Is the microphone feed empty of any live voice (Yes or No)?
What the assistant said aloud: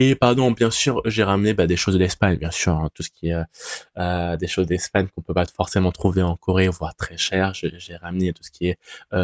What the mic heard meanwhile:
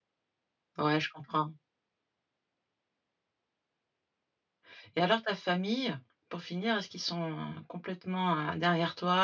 No